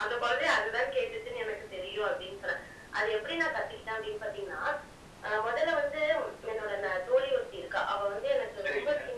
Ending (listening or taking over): listening